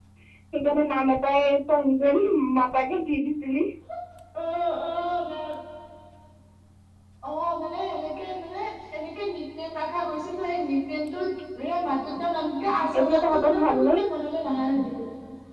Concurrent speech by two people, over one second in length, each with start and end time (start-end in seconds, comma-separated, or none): 12.6-14.0